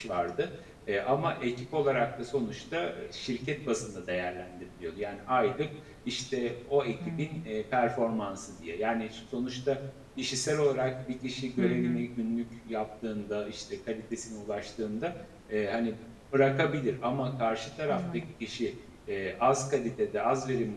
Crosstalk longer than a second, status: none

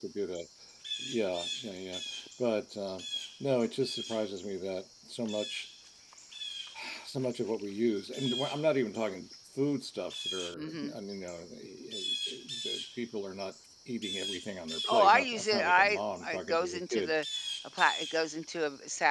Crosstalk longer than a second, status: present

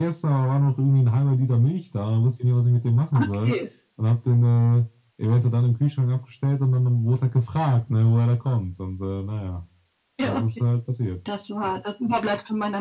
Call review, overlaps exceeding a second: none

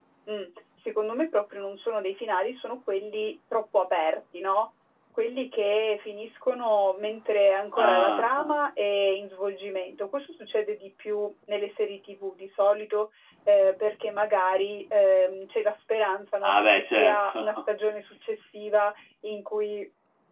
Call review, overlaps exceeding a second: present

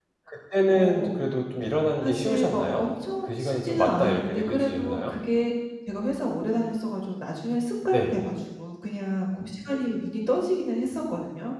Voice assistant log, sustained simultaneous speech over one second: present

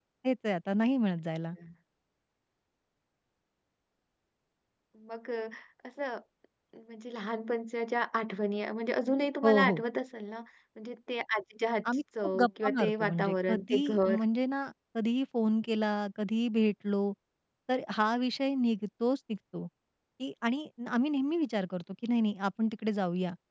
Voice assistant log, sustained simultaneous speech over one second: present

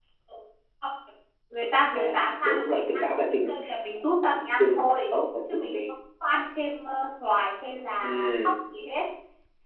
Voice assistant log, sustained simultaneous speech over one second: present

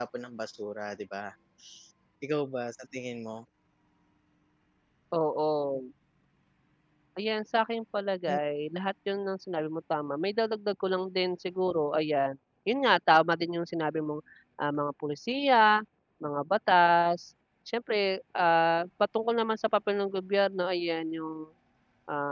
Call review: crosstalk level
none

